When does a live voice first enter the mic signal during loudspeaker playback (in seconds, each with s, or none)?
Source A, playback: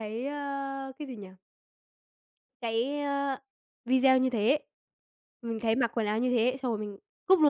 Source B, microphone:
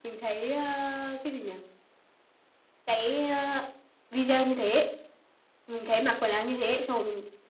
none